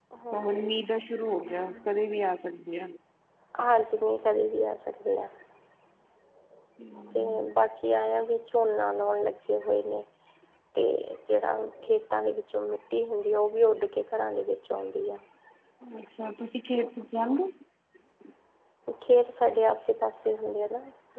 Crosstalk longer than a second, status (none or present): none